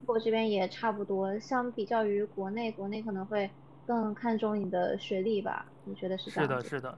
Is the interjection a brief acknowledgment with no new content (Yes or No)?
No